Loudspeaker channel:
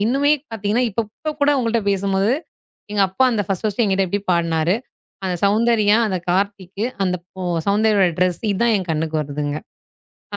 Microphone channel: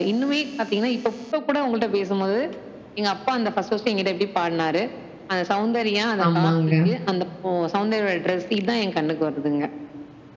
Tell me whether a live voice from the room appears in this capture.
Yes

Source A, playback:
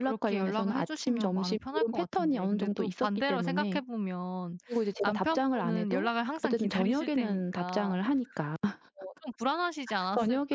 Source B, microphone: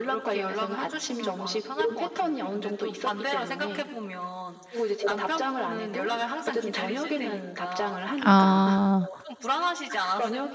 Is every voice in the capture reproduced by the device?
No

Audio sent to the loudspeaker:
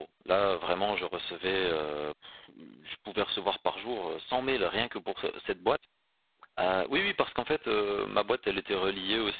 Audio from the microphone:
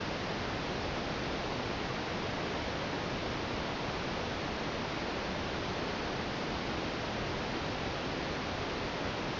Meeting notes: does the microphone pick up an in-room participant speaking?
No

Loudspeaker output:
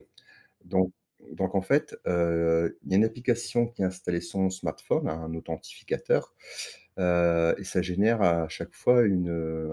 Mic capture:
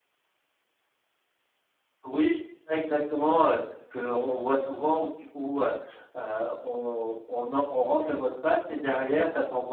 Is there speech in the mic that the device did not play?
Yes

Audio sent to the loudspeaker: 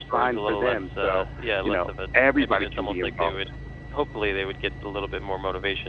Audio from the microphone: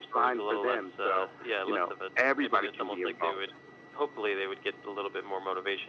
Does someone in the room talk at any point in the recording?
No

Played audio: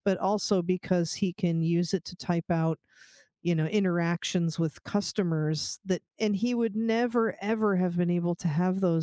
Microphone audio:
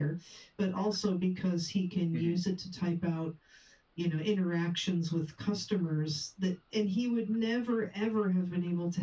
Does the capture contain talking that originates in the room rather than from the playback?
Yes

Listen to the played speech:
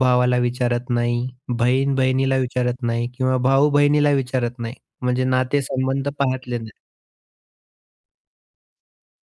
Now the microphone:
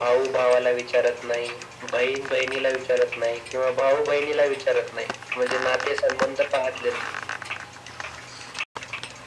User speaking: No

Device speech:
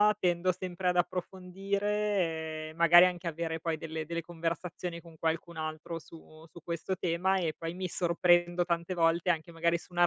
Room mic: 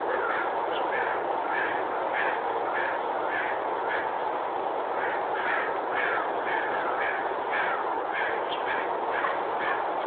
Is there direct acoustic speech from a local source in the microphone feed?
No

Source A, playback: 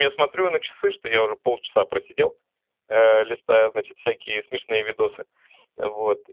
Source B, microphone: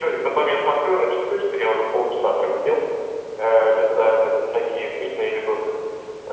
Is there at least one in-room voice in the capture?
No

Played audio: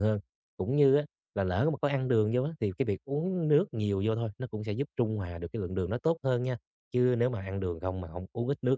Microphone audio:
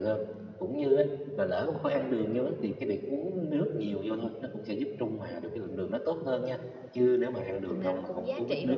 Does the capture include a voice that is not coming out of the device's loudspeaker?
Yes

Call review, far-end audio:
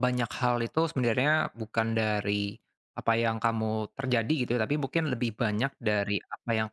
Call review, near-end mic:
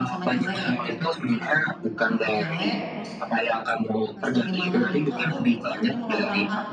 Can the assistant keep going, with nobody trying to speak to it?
No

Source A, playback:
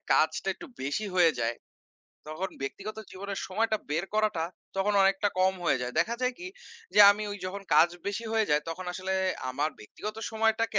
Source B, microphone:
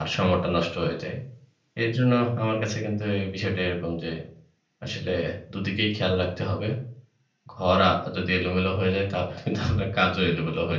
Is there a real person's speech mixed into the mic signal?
Yes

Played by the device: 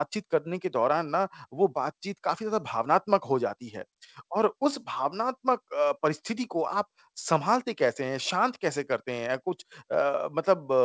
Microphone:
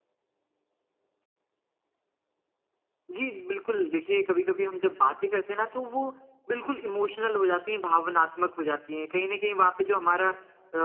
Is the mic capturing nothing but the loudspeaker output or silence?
No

